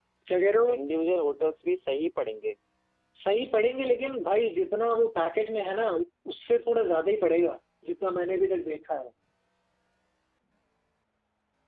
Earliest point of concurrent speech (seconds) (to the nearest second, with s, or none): none